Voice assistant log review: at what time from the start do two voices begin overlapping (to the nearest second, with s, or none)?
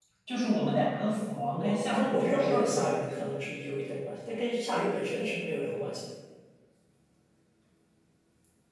2 s